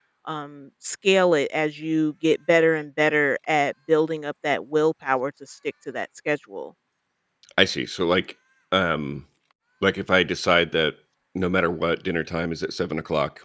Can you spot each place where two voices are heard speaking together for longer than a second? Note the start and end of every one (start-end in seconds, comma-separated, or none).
none